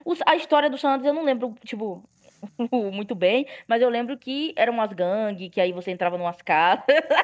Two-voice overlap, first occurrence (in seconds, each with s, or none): none